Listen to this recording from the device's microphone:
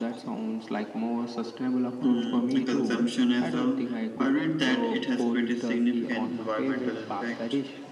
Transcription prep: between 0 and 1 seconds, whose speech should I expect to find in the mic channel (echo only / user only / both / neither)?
echo only